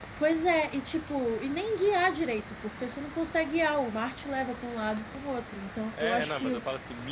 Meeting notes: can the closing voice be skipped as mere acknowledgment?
No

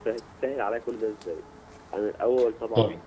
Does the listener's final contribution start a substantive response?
No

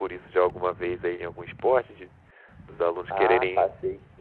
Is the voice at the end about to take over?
Yes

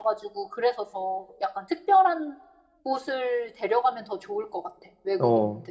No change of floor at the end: No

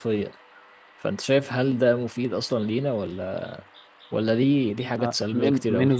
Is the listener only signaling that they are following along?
No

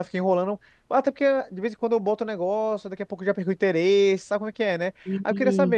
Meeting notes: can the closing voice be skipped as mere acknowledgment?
Yes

